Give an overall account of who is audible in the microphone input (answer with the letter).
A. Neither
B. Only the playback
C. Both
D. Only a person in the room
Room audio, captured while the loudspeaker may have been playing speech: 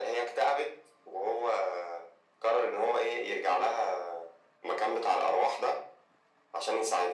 B